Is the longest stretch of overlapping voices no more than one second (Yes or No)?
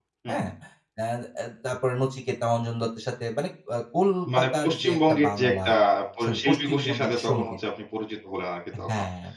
No